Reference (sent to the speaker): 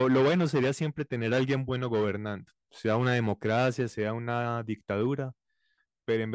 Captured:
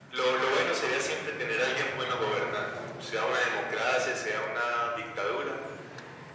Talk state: echo only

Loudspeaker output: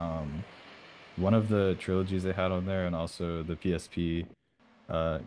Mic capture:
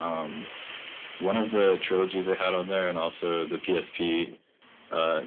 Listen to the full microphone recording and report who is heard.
echo only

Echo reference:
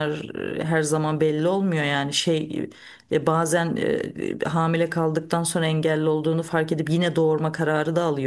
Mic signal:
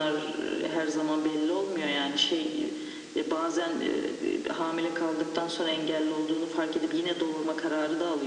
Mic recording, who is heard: echo only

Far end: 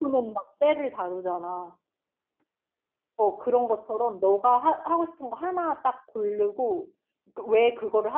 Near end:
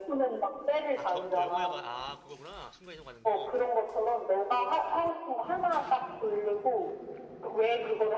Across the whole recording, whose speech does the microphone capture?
both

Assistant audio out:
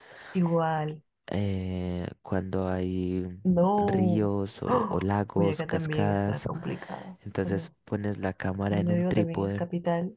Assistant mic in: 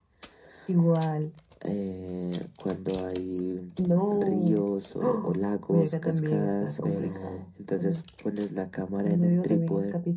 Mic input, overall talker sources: both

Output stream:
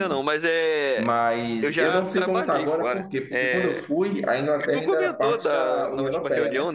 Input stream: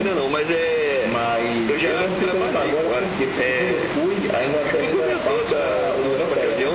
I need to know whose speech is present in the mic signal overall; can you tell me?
echo only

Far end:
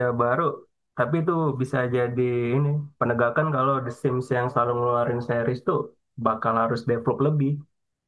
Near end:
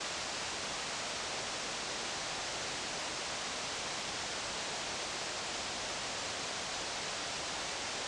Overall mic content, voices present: neither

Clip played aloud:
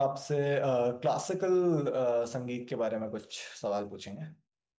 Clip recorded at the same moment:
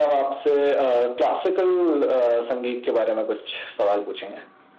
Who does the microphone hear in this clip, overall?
echo only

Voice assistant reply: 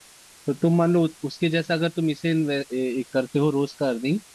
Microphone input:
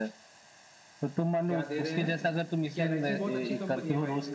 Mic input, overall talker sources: both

